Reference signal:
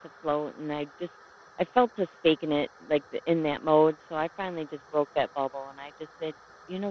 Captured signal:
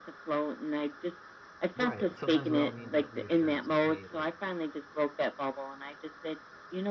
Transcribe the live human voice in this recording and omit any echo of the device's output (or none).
Right. Sometimes we all need that reassurance, like, hey, like